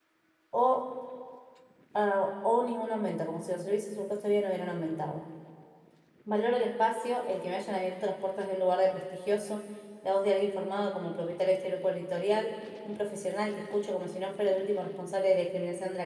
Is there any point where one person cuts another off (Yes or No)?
No